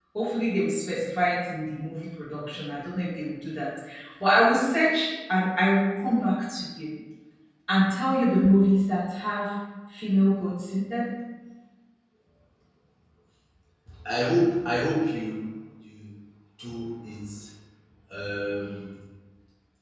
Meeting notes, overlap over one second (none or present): none